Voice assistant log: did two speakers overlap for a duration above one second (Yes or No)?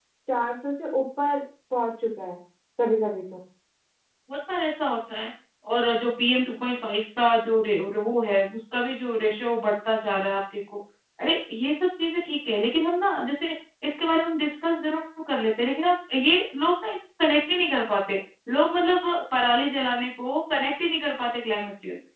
No